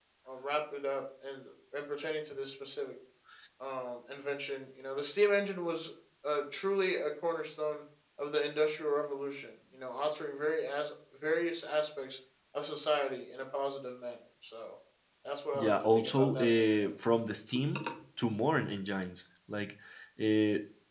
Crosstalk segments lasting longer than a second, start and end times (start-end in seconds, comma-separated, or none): 15.5-16.9